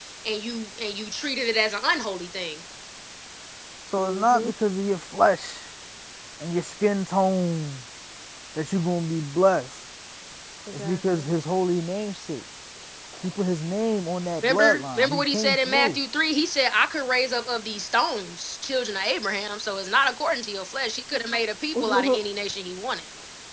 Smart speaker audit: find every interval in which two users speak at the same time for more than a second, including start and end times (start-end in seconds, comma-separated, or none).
14.4-16.0